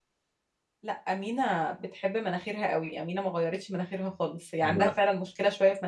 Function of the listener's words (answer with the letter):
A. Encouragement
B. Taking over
A